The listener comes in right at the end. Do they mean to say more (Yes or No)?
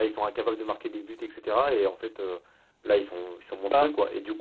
No